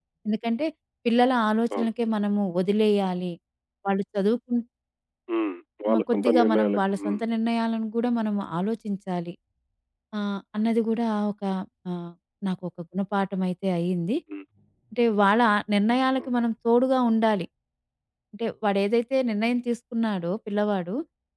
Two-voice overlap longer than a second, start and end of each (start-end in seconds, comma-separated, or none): 5.9-7.2